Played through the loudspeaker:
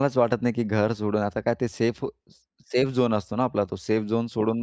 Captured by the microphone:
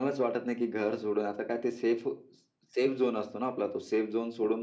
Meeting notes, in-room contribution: none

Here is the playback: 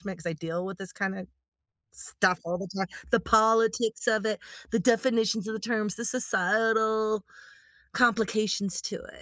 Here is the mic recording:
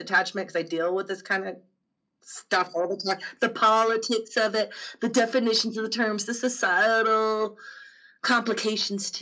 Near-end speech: none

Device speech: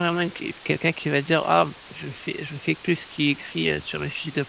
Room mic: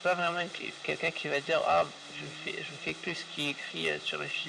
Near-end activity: none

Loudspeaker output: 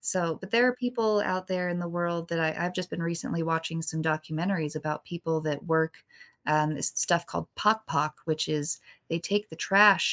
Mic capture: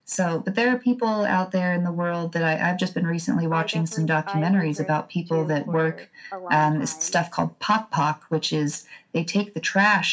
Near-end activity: present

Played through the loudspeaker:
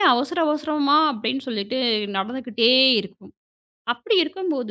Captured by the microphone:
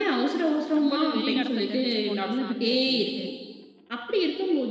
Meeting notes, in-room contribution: present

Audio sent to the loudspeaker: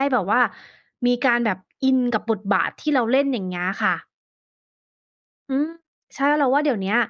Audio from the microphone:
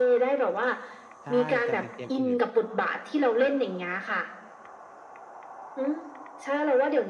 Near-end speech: present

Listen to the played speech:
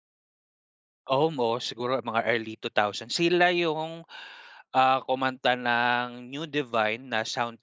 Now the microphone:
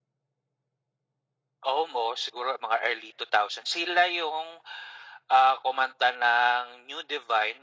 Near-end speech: none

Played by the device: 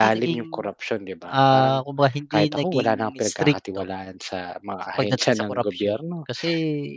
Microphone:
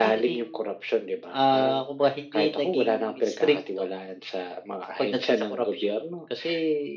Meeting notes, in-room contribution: none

